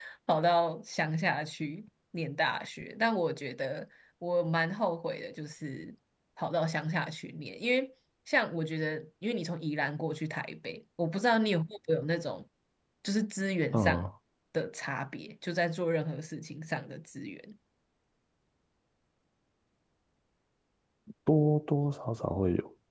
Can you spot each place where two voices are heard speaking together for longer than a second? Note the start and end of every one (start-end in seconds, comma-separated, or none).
none